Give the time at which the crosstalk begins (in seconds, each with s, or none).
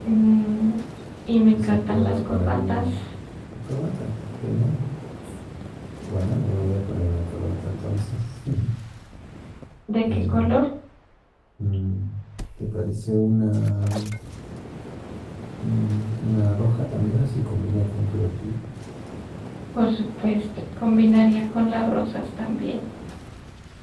1.5 s